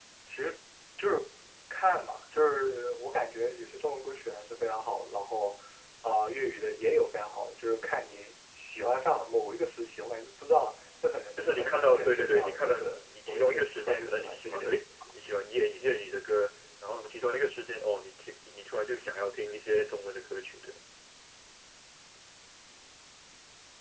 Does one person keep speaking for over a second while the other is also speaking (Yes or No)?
Yes